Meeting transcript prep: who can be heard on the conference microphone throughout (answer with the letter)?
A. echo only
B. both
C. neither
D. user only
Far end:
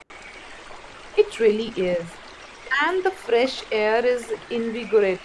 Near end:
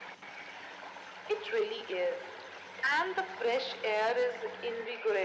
A